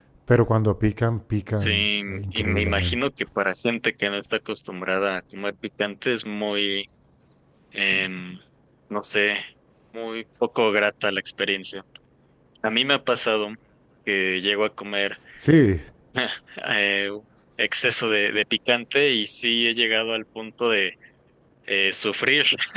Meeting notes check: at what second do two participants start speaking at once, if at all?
1.6 s

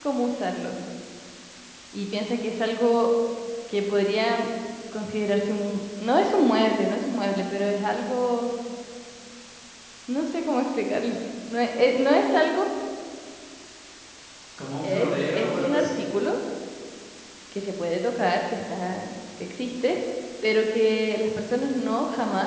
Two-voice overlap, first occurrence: 14.8 s

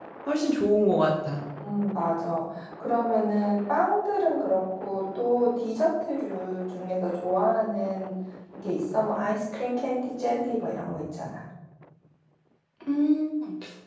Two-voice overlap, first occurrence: none

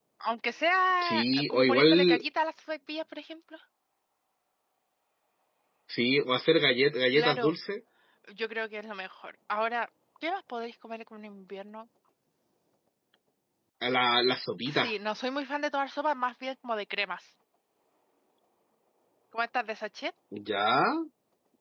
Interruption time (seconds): 1.0 s

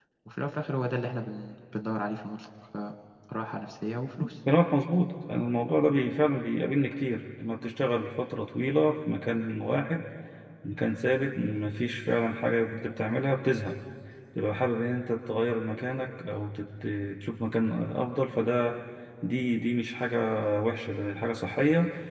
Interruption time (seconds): none

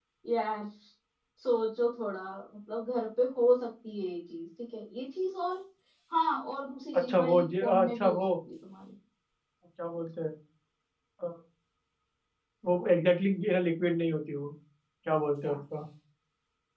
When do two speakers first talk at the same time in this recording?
7.0 s

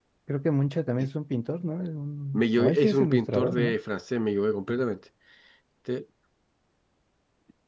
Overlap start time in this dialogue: 2.3 s

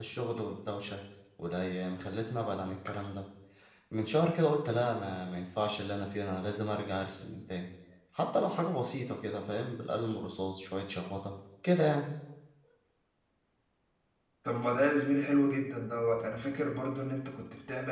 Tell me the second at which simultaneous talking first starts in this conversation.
none

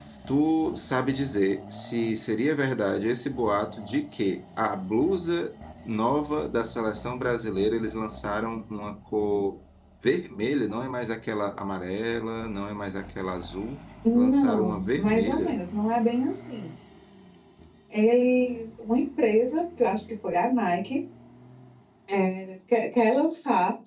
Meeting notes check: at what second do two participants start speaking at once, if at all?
14.0 s

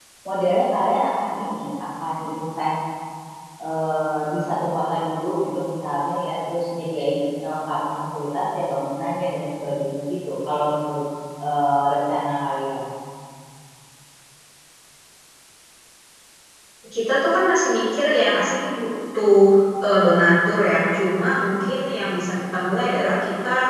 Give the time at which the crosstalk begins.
none

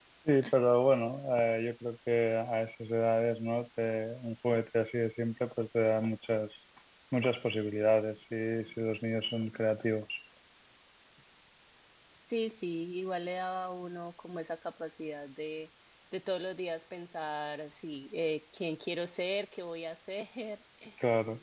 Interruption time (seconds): none

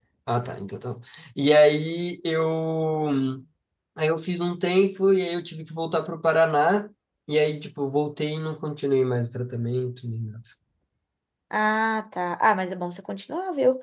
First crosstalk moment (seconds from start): none

